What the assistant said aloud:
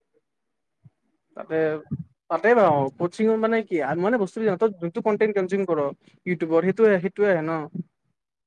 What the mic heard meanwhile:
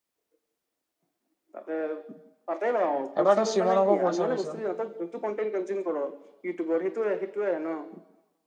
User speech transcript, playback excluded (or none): এবাৰ তই চিমনক কৈ চাবিচোন